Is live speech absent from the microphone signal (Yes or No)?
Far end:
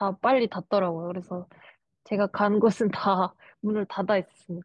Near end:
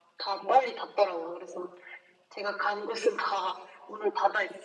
Yes